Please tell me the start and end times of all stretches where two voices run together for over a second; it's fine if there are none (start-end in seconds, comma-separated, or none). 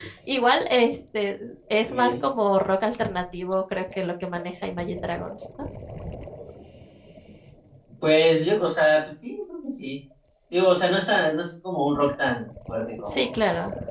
none